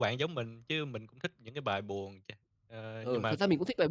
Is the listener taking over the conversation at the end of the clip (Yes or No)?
Yes